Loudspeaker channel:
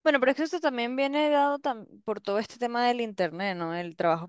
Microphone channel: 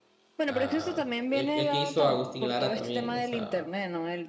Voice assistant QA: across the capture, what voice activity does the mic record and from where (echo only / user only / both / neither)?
both